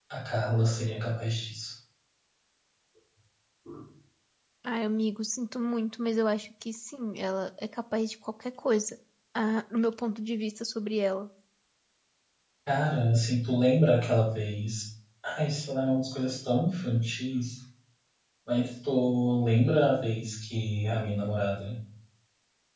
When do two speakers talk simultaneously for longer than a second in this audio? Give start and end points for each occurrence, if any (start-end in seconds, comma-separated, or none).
none